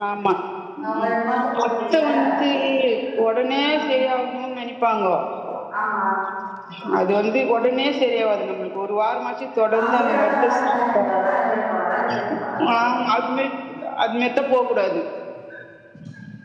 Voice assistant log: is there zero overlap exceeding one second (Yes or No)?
No